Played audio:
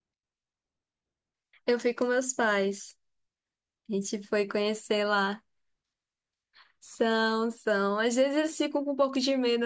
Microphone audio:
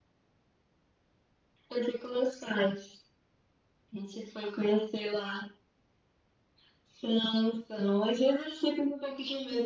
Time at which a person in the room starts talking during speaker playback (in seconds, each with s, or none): none